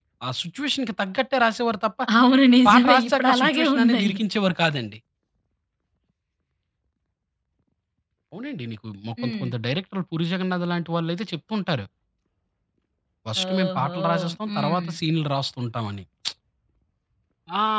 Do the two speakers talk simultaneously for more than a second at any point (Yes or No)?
Yes